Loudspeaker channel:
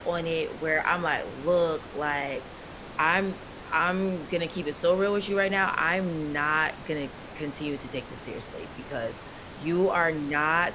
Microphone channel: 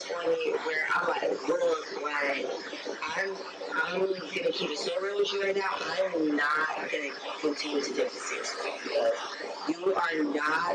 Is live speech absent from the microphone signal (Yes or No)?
Yes